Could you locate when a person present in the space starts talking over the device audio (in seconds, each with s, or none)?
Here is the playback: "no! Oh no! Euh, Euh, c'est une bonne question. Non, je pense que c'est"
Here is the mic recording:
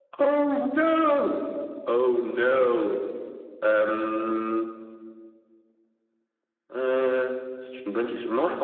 none